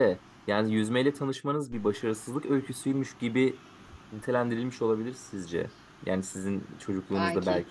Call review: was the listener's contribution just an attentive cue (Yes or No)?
Yes